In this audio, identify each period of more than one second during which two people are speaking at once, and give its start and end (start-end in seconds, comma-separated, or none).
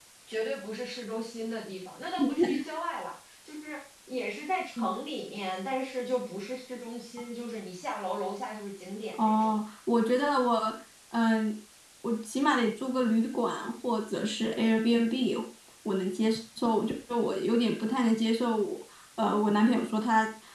none